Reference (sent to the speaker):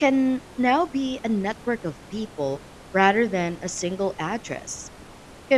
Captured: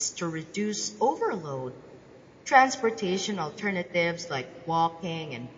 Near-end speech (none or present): present